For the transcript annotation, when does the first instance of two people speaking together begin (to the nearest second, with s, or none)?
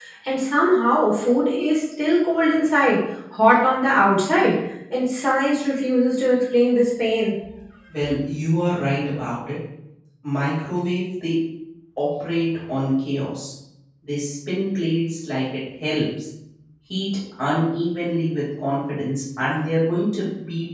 none